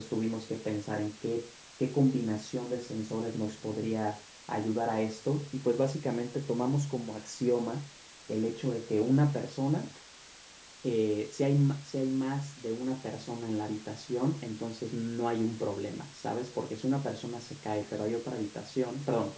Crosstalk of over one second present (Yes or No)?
No